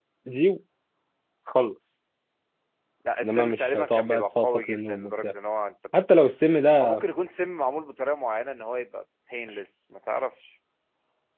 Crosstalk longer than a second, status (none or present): present